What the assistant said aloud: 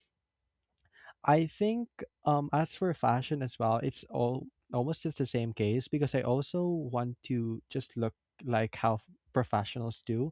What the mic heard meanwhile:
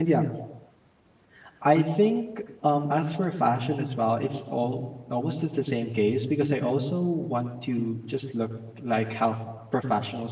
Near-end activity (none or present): none